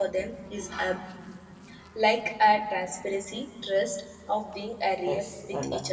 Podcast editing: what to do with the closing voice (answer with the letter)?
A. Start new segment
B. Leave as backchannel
A